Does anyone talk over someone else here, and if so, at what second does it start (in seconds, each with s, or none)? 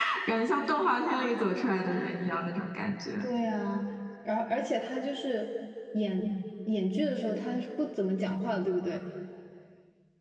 none